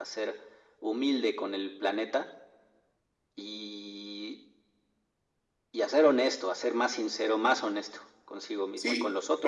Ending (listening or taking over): taking over